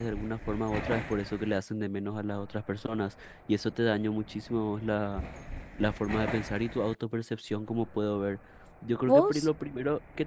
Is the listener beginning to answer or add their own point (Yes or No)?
No